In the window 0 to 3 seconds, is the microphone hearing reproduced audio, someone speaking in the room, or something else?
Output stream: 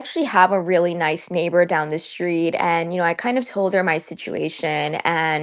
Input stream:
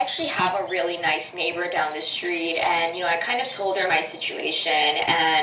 echo only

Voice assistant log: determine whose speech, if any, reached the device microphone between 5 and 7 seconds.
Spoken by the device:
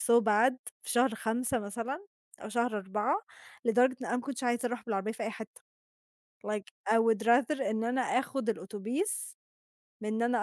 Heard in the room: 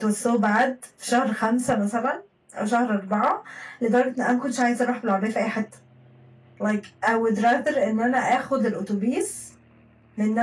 echo only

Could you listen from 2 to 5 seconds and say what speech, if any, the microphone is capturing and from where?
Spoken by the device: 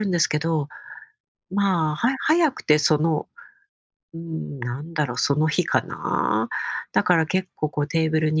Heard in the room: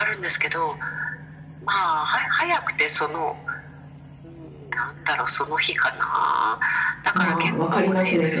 echo only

